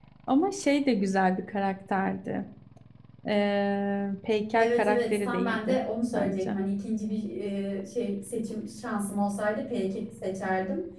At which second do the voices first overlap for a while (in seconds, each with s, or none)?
4.6 s